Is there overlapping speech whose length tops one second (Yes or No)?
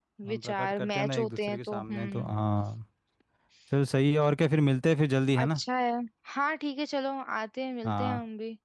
Yes